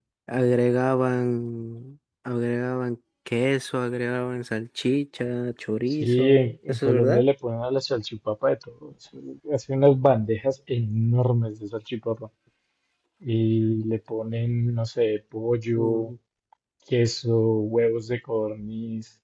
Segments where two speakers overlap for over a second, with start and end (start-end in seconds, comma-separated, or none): 6.0-7.2